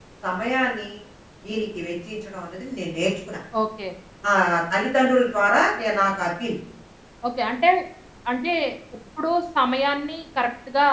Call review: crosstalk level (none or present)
none